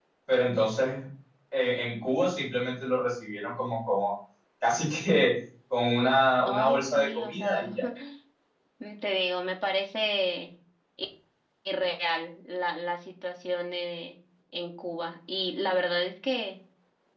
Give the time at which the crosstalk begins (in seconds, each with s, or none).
6.5 s